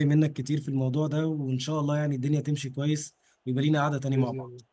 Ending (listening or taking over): taking over